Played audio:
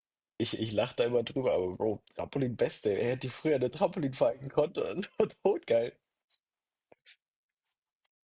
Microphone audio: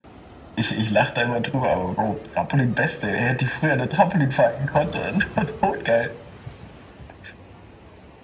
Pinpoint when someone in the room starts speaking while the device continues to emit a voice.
none

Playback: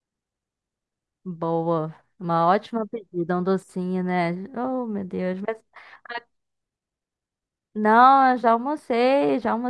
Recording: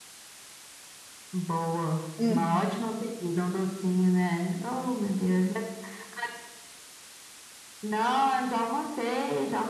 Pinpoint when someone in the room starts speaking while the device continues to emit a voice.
2 s

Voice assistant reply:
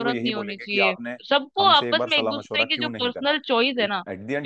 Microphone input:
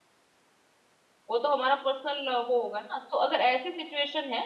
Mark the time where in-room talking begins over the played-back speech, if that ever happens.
1 s

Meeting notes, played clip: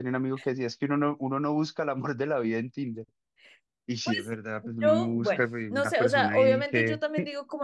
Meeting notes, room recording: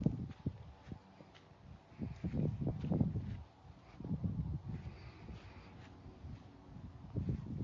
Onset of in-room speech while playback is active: none

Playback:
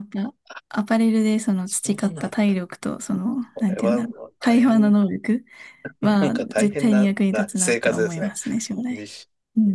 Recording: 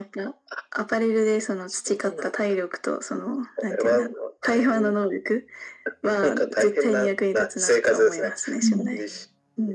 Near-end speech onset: 9 s

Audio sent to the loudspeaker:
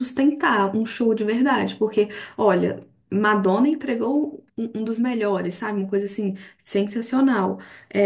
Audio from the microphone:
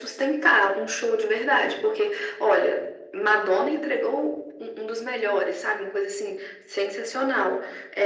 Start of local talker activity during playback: none

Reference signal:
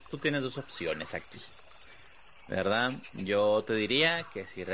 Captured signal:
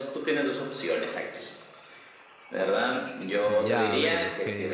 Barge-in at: 3 s

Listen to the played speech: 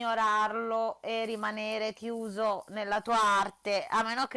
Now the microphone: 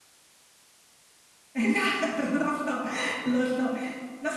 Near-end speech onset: 2 s

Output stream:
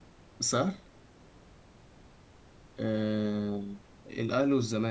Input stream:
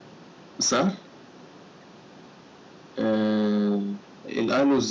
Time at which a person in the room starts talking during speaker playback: none

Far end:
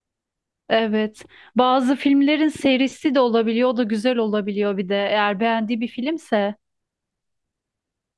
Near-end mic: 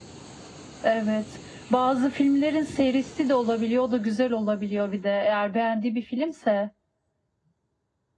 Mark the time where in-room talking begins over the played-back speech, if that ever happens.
none

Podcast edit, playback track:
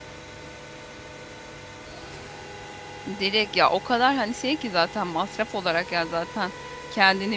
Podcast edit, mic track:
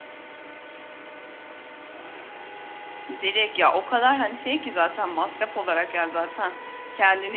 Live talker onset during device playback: none

